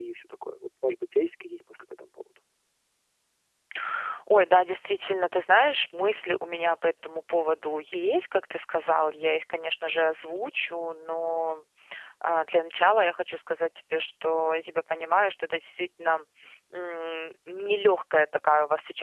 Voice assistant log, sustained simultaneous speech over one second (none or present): none